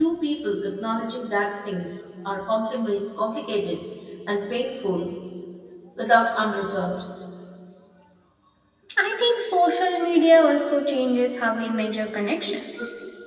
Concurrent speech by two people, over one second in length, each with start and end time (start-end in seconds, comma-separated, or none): none